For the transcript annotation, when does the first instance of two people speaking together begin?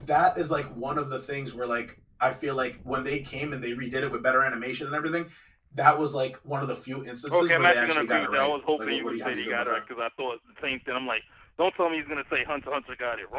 7.3 s

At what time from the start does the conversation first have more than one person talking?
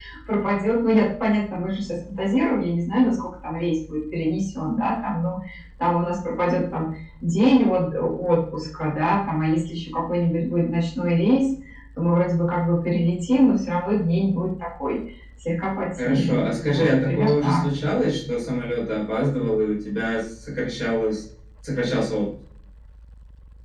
16.0 s

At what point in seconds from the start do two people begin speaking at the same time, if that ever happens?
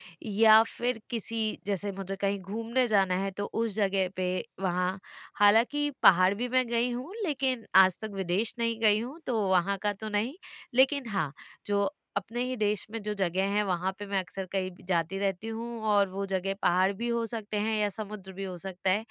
none

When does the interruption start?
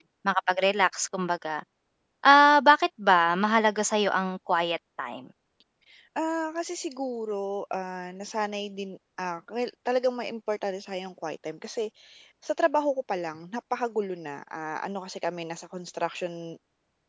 none

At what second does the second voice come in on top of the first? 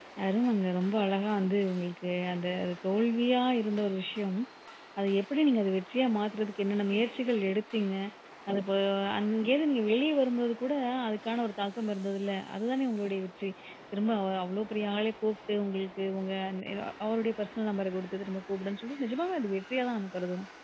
none

